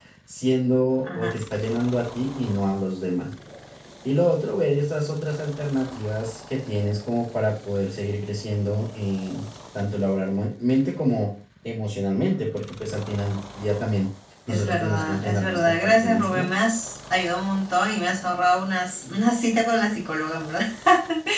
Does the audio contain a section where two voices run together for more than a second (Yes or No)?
Yes